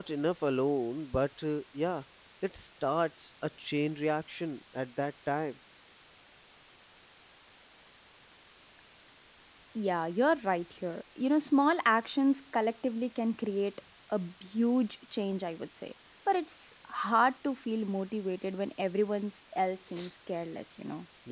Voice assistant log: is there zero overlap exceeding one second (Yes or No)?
Yes